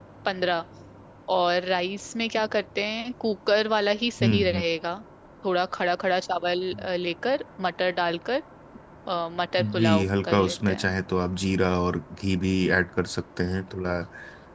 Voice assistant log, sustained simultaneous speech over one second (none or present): present